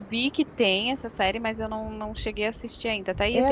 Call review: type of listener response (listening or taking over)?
taking over